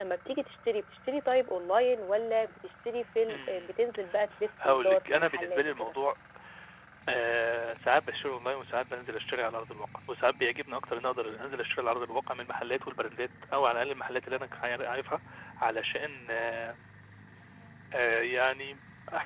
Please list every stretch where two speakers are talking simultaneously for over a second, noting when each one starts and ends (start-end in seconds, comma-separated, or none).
4.6-6.0